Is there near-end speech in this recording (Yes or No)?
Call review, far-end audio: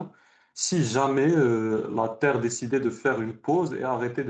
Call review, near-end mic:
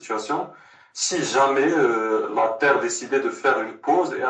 No